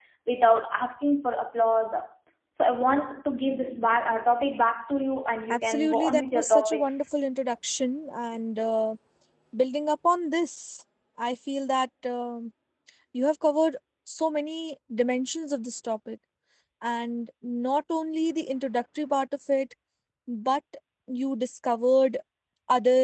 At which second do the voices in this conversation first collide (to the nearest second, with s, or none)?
6 s